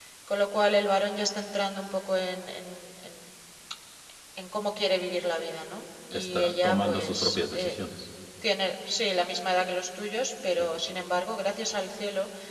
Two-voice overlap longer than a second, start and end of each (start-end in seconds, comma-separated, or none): 6.1-7.7